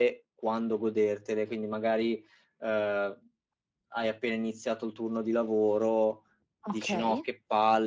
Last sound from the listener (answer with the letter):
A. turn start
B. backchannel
B